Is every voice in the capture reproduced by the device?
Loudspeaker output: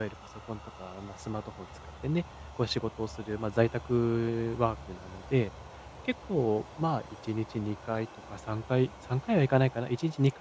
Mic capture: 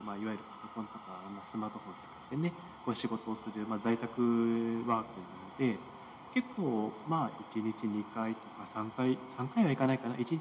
Yes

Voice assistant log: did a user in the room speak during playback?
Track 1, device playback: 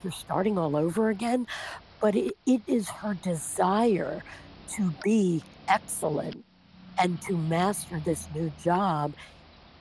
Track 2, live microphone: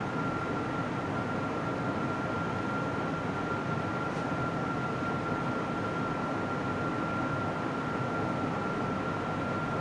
No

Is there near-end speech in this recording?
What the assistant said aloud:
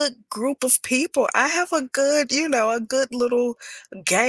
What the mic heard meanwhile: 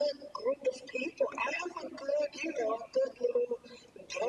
No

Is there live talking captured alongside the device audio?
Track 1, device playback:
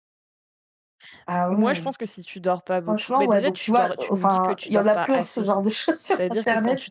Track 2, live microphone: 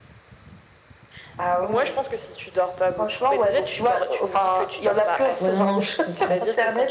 Yes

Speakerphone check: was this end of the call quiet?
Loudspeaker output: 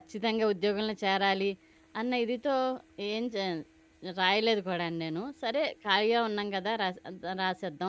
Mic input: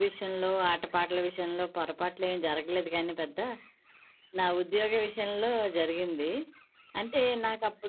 No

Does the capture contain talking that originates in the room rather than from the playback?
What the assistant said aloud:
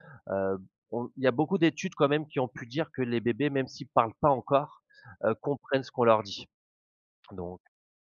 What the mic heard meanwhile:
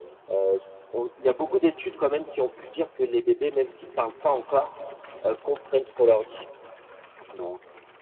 No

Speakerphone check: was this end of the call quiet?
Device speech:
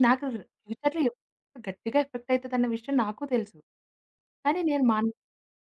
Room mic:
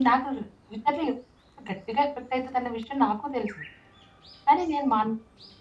Yes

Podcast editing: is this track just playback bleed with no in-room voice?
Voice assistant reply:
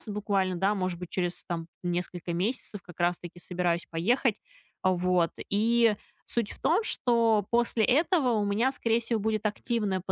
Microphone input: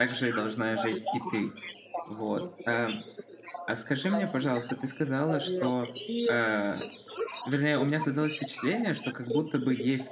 No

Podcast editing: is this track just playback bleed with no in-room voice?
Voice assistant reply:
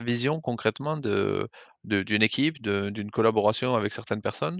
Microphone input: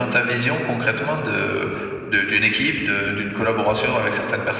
Yes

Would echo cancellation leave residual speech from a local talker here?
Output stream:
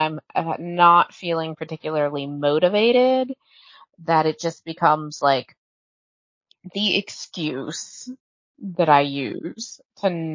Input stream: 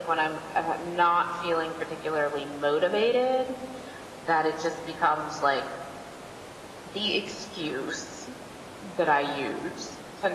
No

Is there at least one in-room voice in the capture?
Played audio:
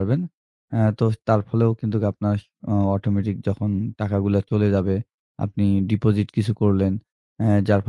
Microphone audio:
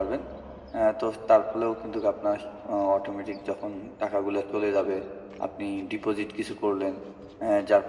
No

